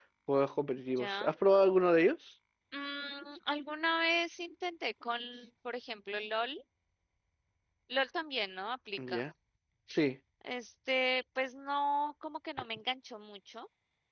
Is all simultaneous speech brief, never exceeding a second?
Yes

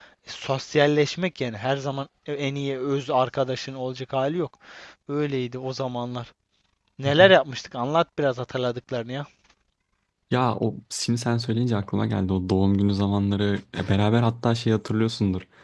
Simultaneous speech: No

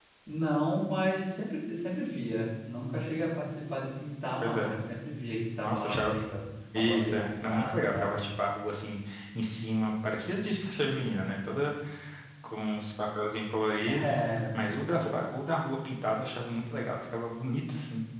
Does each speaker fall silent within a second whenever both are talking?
No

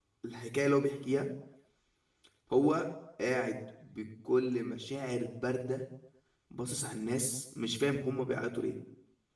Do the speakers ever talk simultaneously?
No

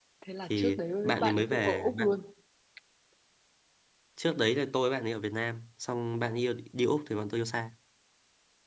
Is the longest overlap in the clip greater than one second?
Yes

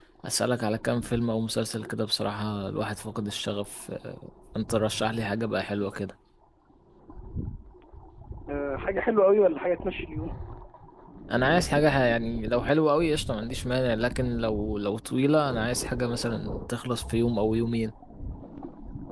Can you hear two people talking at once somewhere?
No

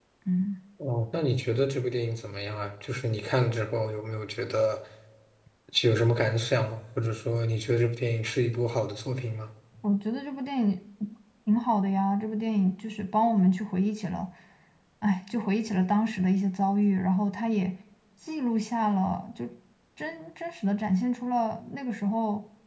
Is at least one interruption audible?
No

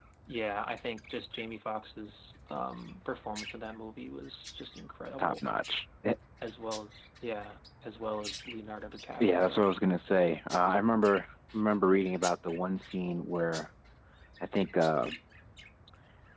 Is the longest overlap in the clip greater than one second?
No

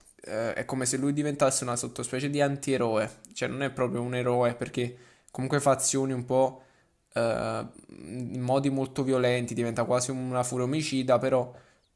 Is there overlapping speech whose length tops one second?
No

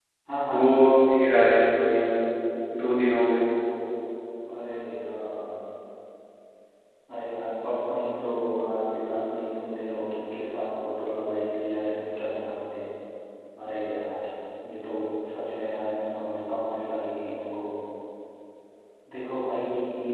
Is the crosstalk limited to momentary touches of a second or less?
Yes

